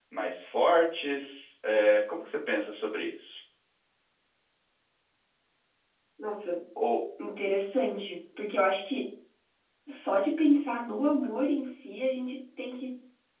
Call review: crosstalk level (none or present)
none